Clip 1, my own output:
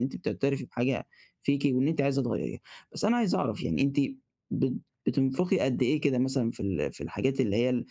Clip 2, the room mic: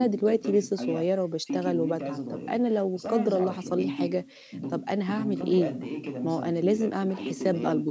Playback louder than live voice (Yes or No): No